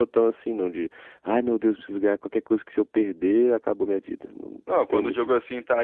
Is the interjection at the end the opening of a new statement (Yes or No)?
Yes